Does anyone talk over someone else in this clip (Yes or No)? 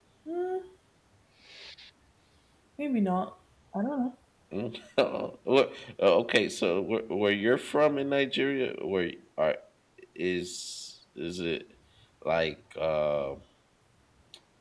No